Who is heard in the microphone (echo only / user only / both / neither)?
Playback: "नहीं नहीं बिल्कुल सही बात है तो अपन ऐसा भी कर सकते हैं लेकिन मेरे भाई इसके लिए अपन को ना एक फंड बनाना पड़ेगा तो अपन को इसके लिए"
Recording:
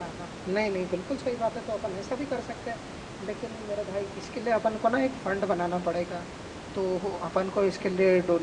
echo only